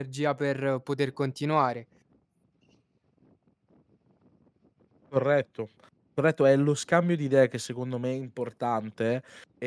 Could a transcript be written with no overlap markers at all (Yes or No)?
Yes